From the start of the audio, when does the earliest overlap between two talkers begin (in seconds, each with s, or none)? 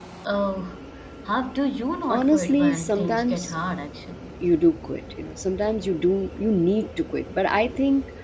2.1 s